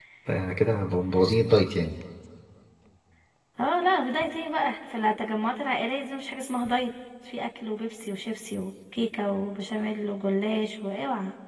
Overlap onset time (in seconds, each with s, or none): none